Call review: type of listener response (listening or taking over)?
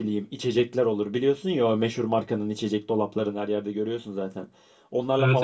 listening